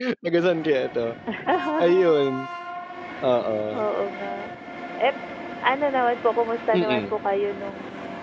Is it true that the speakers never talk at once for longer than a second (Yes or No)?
Yes